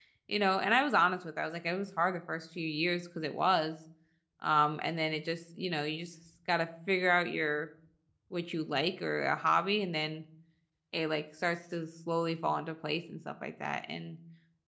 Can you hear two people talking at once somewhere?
No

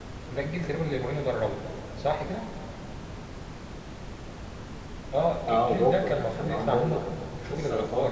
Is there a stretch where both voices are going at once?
Yes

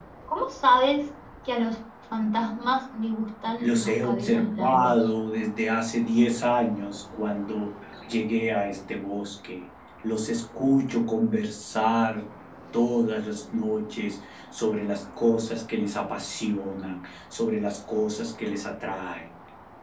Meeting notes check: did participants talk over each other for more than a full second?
Yes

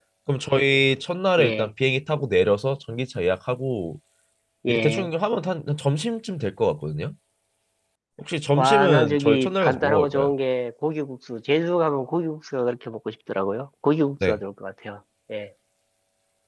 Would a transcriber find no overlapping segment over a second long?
No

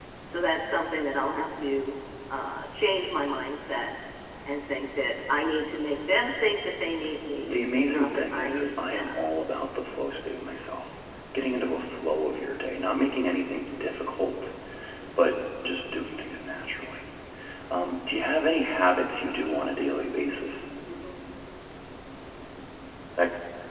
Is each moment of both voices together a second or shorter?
No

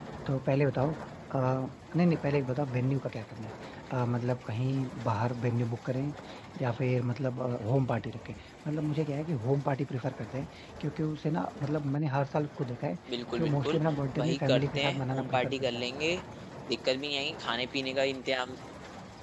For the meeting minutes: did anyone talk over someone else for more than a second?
Yes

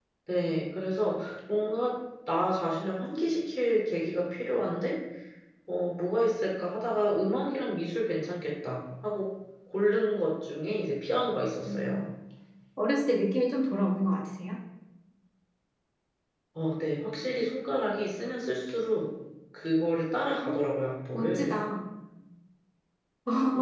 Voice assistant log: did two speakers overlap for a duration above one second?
No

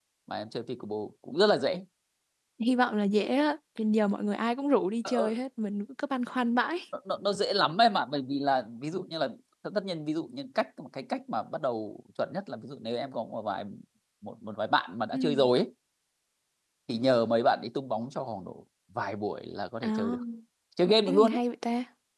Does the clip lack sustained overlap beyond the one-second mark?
Yes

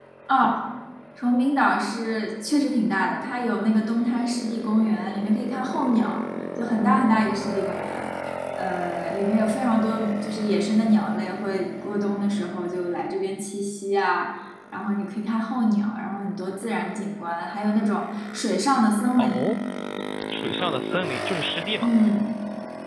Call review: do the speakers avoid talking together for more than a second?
Yes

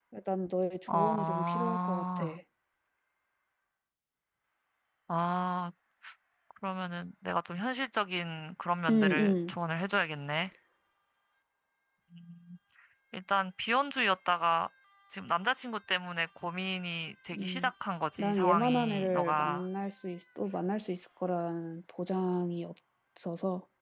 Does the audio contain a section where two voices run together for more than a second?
Yes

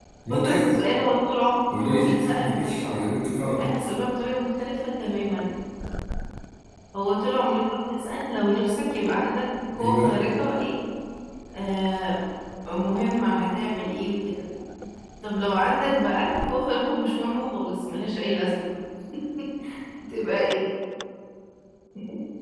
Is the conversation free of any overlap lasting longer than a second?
No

